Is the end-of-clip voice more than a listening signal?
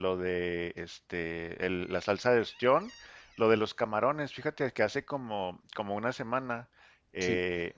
No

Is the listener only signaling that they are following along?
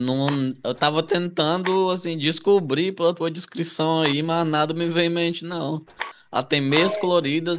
Yes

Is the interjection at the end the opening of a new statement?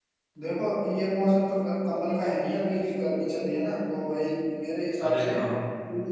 No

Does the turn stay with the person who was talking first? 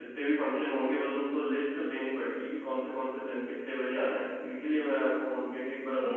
No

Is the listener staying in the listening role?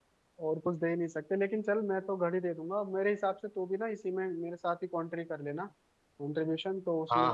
No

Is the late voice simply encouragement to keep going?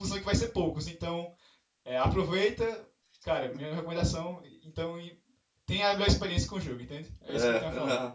No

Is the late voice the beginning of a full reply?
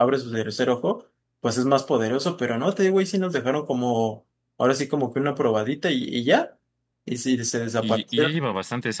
Yes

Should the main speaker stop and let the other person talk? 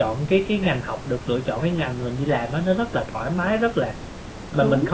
No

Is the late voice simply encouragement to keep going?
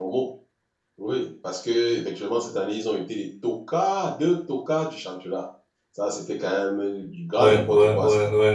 No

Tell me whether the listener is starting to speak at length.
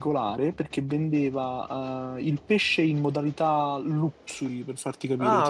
No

